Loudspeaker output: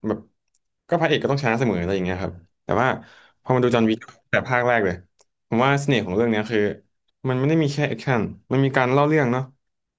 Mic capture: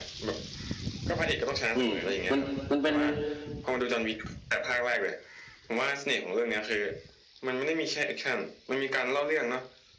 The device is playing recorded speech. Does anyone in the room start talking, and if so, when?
1.7 s

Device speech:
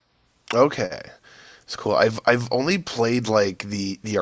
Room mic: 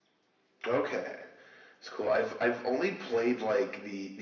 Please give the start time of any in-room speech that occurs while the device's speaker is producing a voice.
none

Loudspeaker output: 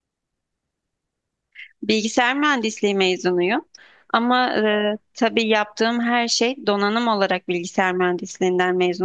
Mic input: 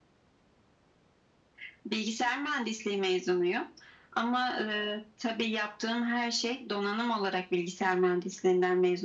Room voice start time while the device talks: none

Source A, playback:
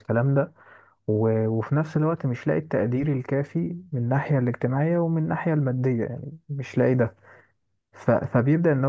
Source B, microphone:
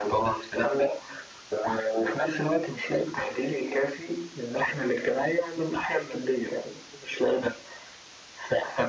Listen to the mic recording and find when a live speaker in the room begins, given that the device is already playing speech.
none

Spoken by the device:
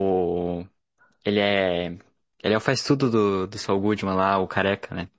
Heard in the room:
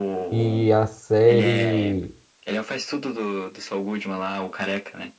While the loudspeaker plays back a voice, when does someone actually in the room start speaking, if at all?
0.3 s

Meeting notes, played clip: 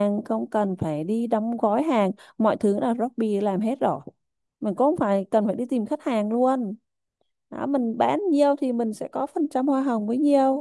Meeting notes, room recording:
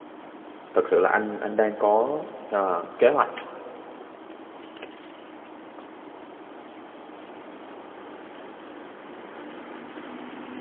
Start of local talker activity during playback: 0.7 s

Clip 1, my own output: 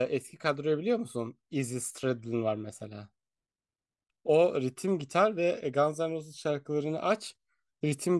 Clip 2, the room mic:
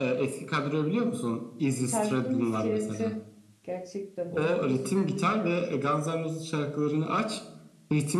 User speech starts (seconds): 1.8 s

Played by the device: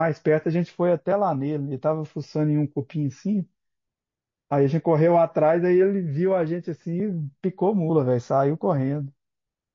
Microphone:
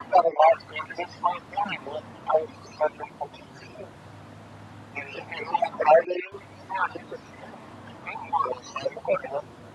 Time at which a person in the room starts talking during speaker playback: none

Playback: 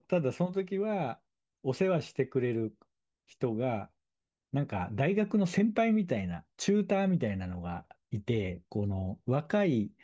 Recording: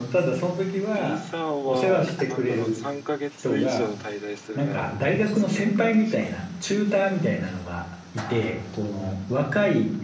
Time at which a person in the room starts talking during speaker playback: 0.9 s

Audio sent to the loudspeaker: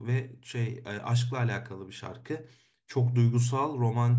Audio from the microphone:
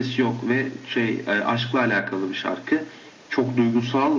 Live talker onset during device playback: none

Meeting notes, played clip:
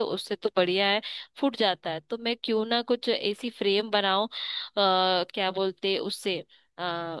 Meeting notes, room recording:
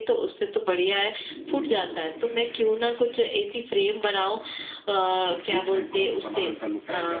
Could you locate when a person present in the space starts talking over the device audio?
5.5 s

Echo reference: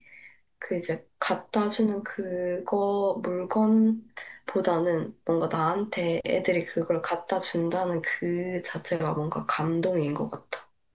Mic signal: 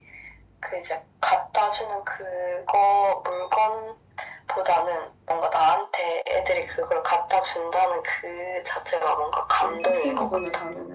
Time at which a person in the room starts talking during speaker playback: 9.5 s

